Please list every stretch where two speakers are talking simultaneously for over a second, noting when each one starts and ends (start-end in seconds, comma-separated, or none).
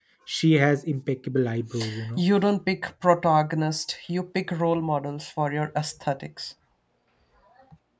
none